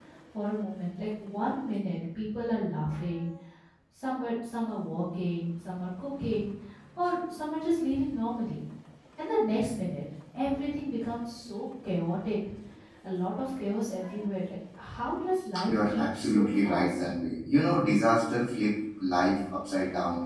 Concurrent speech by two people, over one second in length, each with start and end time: 15.7-17.1

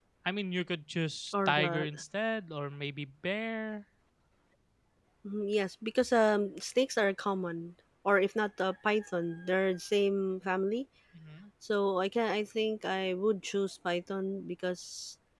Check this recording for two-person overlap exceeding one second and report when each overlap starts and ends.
none

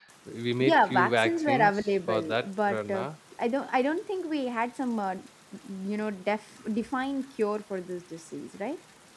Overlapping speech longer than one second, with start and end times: 0.6-3.1

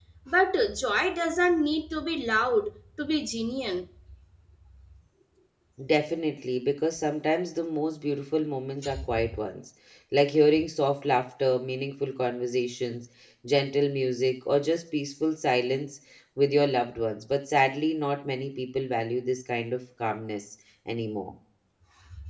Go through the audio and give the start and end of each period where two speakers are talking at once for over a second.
none

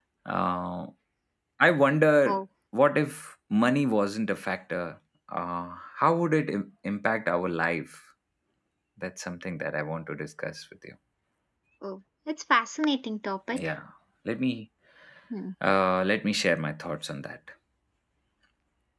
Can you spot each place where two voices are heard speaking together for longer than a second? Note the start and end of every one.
none

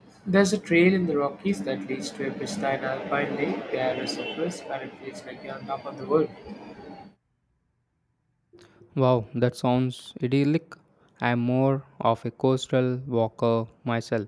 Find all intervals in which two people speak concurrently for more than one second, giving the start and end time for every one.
none

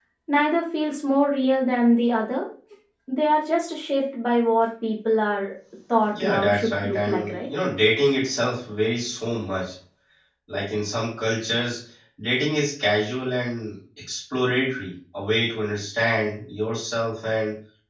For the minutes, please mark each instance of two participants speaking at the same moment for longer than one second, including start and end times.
6.1-7.5

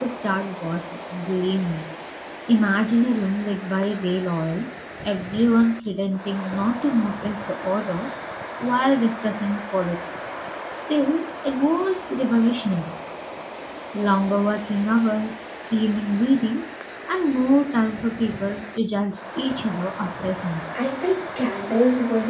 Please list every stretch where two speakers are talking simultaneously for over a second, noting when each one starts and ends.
none

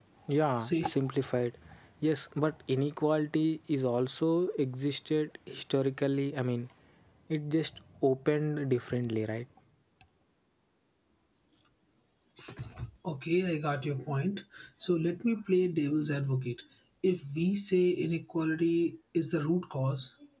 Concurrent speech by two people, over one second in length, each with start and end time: none

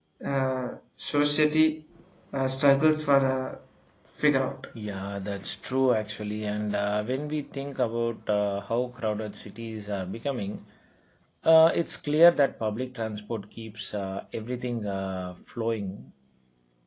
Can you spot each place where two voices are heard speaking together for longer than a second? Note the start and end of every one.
none

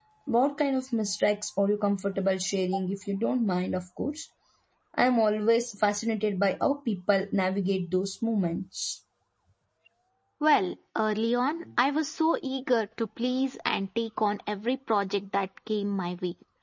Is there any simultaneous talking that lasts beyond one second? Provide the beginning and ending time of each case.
none

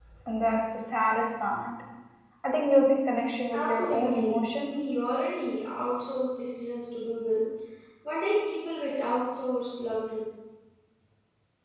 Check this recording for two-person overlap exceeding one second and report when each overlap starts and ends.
3.5-4.7

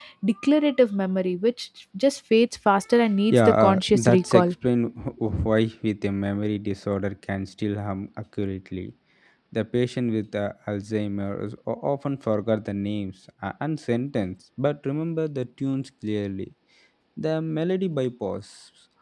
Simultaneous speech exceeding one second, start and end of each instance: 3.3-4.5

